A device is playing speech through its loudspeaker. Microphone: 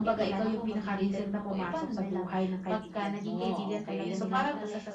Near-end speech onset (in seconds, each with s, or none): 4.0 s